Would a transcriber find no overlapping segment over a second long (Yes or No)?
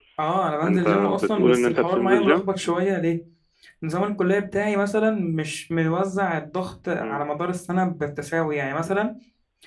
No